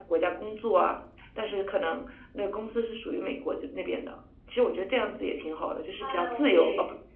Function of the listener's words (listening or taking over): taking over